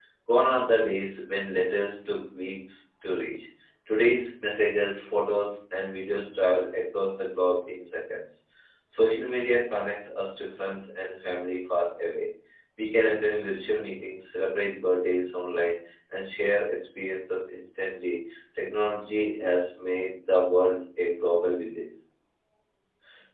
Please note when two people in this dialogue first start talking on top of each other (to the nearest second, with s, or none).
none